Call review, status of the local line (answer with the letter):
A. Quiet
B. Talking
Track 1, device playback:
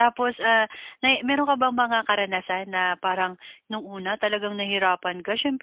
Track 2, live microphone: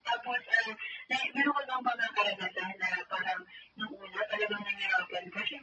A